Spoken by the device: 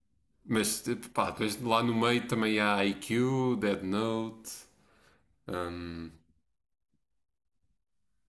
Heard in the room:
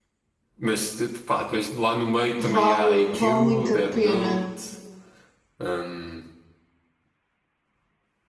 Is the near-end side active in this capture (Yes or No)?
Yes